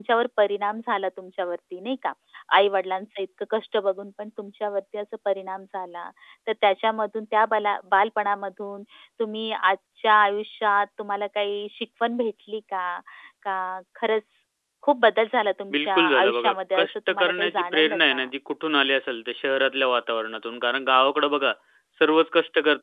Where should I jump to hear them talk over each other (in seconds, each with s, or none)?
15.7 s